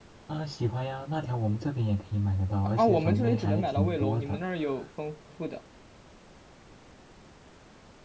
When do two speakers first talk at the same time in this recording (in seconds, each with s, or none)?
2.8 s